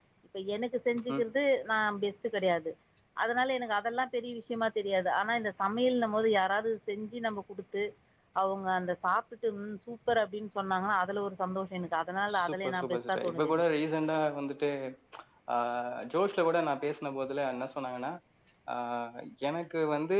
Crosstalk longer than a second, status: present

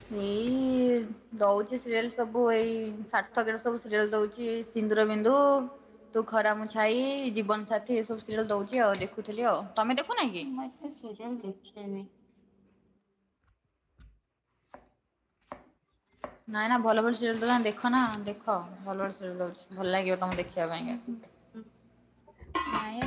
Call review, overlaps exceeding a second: none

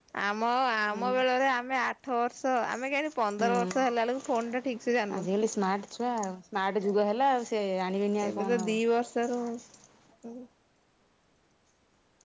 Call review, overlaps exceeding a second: none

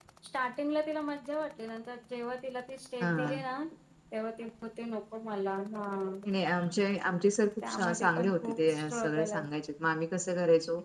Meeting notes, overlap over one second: present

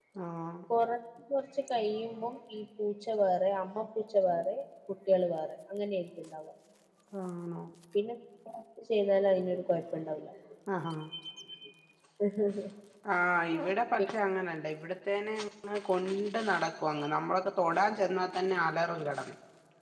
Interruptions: none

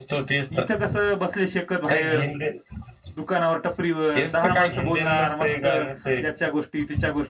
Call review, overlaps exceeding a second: present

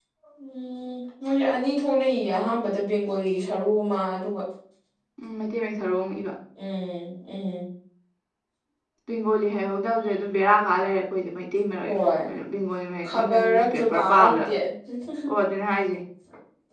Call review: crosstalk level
present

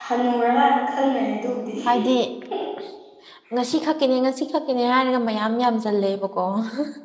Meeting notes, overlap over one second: none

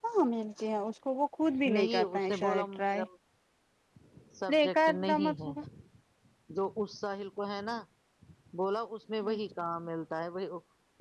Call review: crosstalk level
present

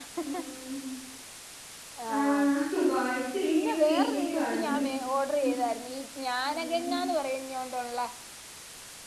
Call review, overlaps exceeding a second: present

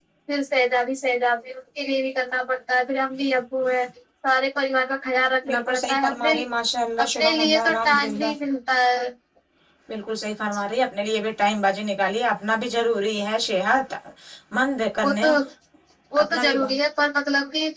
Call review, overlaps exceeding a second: present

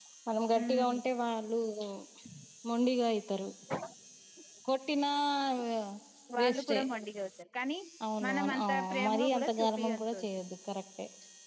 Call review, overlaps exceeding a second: present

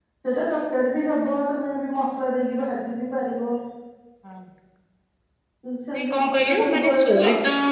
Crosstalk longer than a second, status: present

